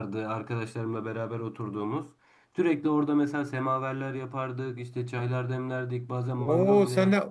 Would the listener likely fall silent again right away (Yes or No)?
No